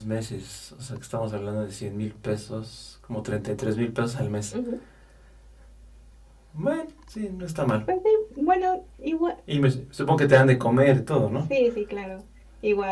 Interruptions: none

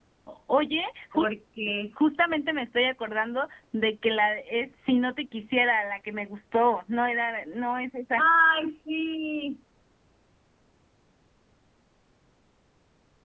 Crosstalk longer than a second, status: none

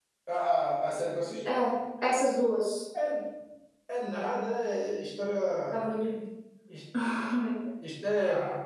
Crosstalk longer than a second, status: none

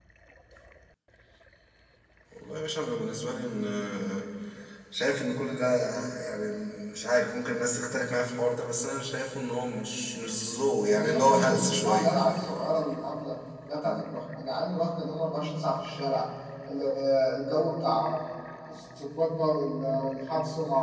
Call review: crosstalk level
present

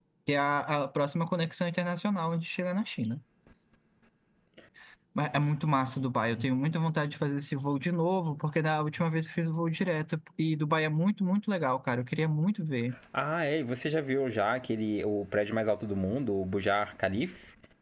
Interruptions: none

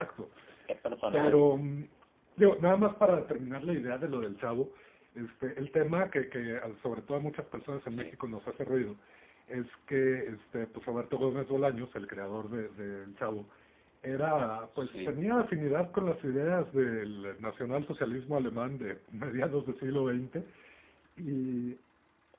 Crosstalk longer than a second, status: none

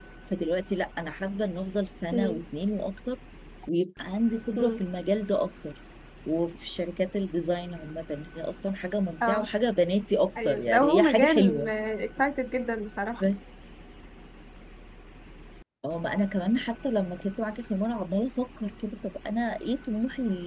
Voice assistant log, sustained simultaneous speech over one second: present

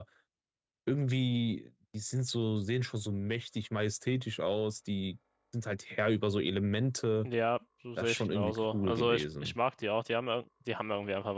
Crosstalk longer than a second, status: present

